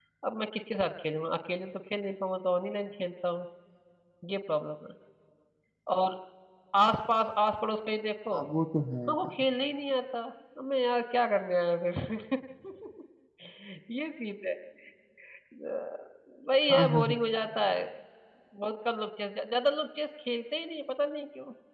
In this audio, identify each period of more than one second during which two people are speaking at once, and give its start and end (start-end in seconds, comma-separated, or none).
none